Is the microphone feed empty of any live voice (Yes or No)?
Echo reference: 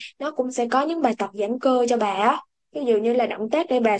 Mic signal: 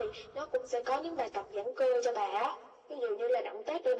Yes